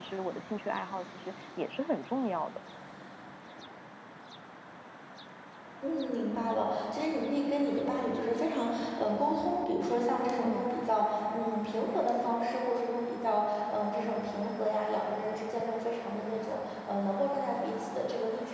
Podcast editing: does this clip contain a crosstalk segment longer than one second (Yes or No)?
No